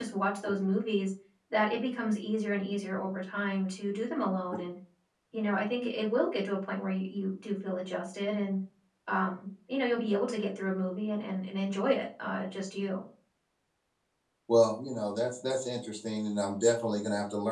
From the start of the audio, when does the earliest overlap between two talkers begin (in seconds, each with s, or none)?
none